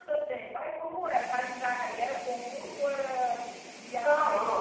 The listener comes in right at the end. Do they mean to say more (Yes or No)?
Yes